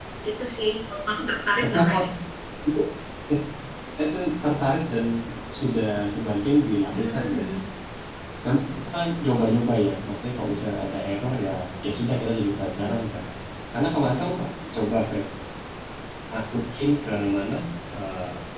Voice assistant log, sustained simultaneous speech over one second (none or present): none